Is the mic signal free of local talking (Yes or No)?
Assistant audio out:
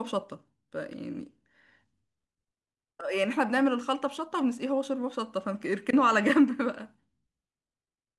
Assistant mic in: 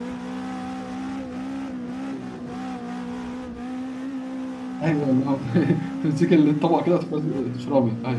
No